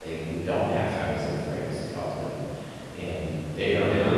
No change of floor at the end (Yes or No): Yes